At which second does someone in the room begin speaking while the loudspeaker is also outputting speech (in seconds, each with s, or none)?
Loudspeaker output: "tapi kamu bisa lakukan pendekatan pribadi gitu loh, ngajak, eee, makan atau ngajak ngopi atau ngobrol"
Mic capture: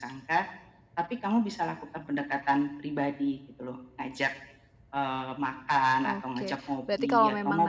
6.0 s